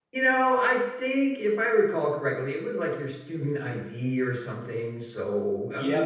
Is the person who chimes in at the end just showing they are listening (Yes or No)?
No